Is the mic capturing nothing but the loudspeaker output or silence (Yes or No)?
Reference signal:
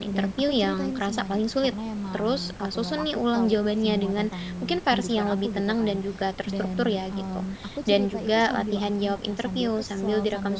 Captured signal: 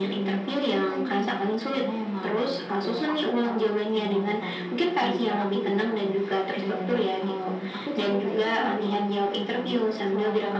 Yes